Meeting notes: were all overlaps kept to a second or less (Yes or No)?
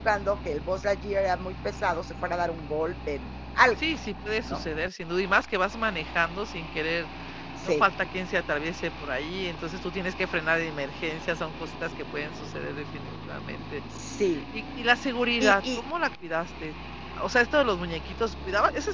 Yes